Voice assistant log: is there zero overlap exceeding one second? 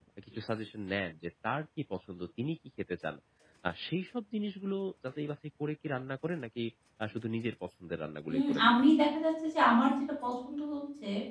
Yes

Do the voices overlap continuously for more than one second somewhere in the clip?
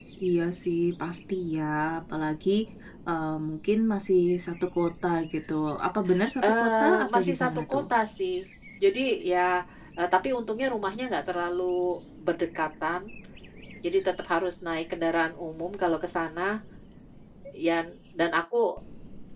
Yes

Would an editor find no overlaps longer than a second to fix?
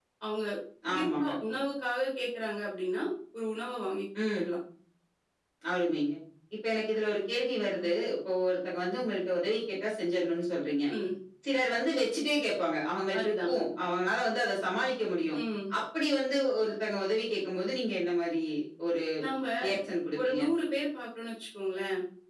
Yes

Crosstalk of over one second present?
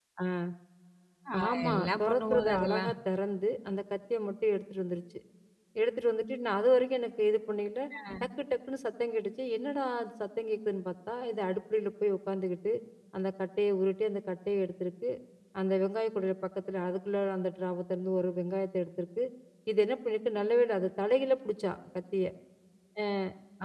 Yes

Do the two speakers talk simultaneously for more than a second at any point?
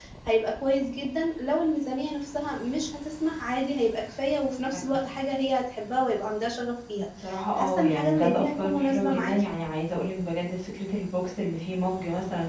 Yes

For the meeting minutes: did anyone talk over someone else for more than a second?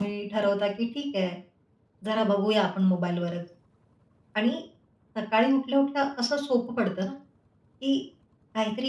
No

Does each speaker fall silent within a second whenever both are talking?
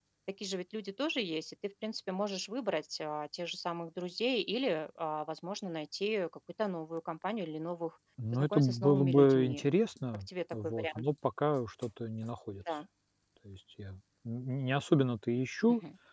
No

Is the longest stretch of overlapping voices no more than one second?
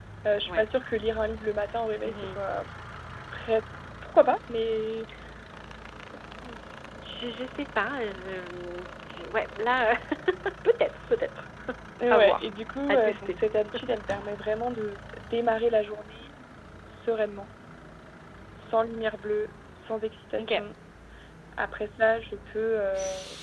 Yes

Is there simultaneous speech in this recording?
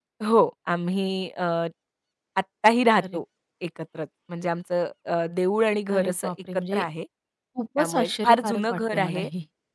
Yes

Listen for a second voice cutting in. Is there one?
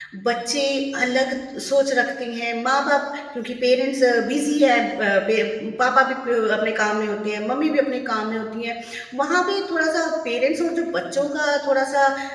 No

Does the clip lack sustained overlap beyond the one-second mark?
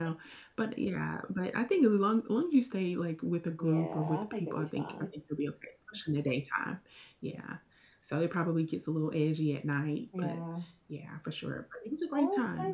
No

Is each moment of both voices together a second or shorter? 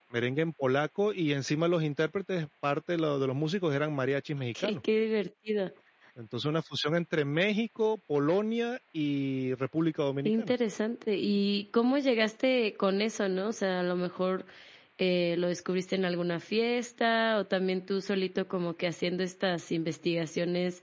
Yes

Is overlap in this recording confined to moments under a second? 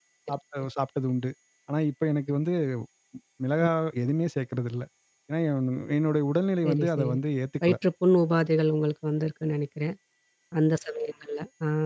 Yes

